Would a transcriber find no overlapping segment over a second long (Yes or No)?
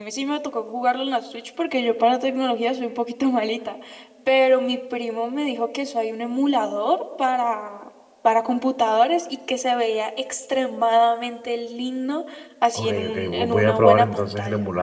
No